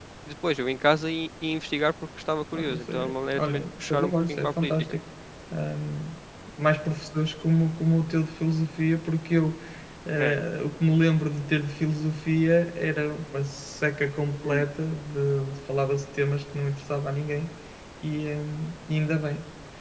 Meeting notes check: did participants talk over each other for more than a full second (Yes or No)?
Yes